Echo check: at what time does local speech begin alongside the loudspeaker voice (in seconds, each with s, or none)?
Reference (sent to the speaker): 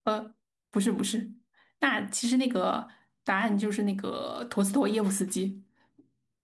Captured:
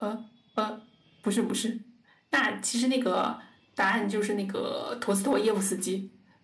none